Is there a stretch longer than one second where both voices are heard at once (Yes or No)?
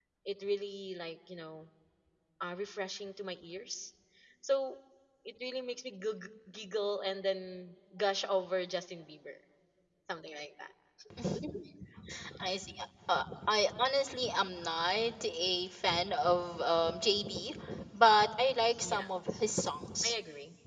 No